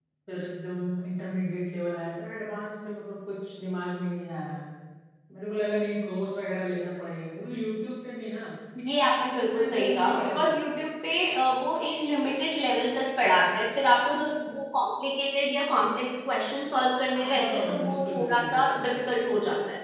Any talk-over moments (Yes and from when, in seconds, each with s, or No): Yes, from 9.2 s